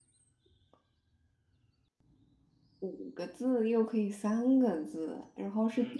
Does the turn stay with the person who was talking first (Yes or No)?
No